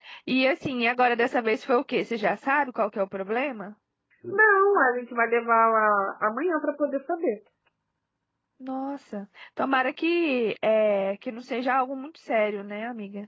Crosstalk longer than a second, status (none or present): none